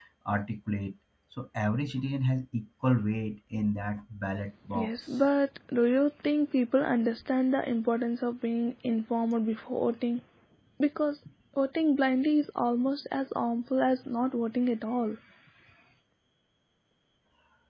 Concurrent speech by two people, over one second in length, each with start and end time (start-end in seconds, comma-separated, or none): none